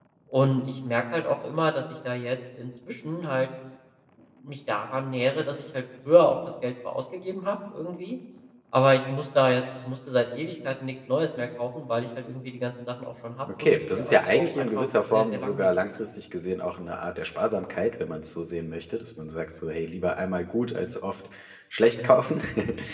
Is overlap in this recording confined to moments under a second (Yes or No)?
No